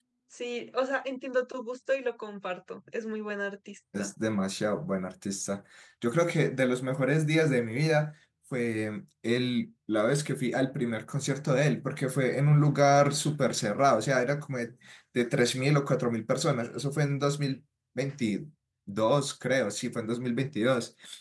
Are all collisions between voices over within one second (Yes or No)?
Yes